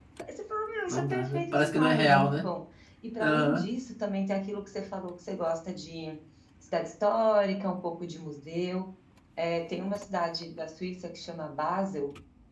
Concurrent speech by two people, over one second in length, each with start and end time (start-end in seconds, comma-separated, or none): 0.9-2.4